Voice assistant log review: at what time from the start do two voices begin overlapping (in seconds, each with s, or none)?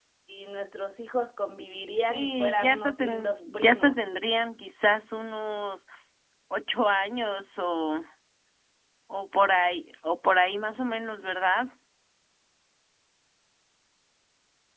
2.1 s